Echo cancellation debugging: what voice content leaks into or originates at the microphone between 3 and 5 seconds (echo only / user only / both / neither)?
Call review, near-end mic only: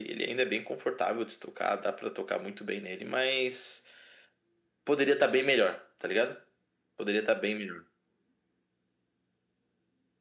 echo only